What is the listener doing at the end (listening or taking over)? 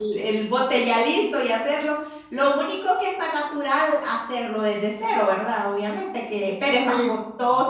listening